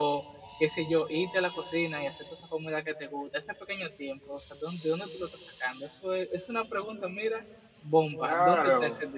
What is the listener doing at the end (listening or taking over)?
taking over